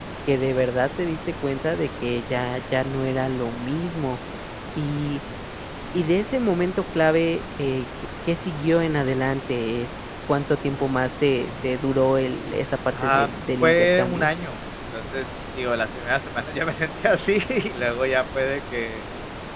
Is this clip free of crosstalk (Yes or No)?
No